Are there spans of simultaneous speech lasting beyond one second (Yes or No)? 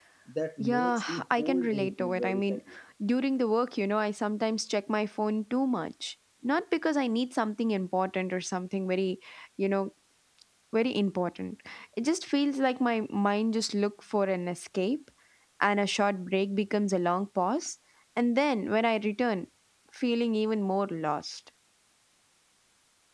Yes